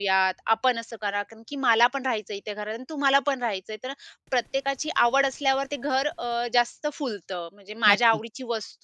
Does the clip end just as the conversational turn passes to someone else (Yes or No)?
No